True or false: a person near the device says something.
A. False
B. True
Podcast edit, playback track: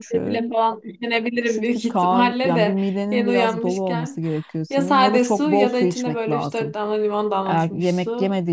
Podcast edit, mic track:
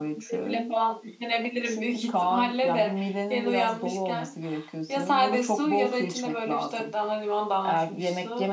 A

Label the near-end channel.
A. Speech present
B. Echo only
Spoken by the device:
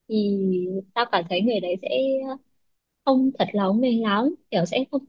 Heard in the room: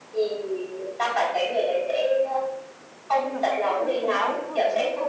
A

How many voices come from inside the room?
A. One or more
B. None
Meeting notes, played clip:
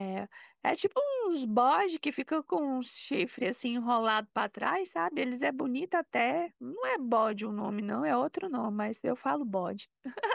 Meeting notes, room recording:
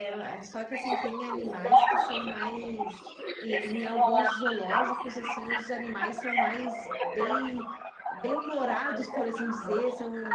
A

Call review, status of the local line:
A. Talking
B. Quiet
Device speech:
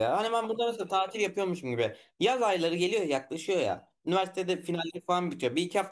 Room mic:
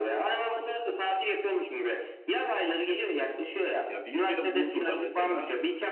A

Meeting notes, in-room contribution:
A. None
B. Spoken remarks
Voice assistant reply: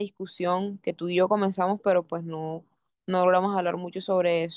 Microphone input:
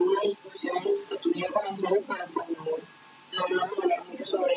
A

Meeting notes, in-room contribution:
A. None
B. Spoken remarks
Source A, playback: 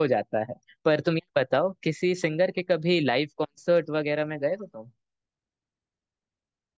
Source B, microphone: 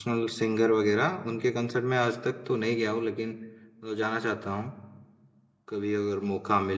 B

